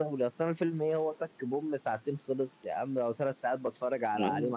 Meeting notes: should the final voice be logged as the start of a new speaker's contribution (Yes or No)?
Yes